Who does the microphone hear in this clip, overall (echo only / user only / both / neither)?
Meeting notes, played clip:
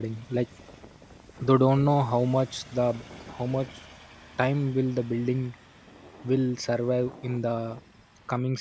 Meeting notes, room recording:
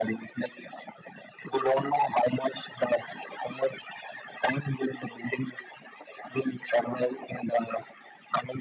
echo only